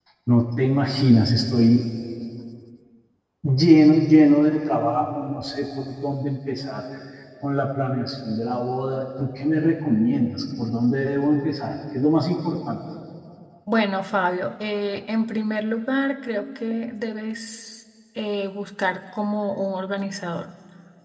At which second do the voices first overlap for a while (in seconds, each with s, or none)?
none